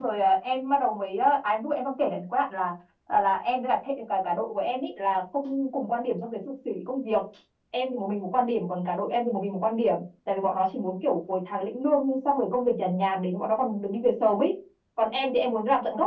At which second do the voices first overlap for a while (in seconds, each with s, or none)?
none